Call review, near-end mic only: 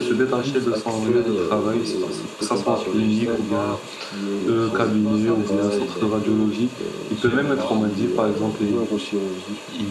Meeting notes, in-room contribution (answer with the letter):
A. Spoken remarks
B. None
A